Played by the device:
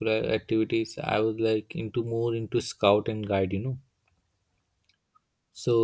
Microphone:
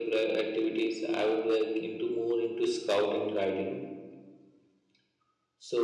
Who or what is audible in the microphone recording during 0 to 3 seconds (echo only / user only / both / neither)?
echo only